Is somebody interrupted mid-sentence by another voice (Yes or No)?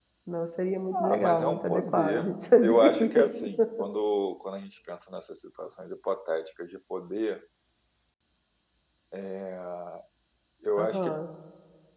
Yes